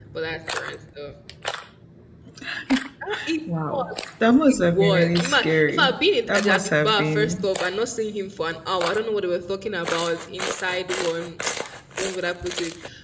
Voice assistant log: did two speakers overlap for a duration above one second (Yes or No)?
Yes